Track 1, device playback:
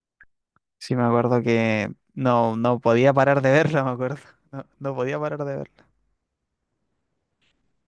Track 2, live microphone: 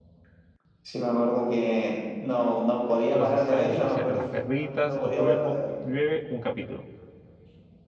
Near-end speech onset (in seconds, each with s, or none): 3.0 s